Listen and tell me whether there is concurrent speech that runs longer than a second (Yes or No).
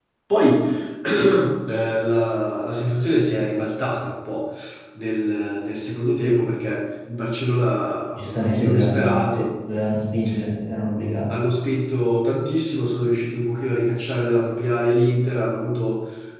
Yes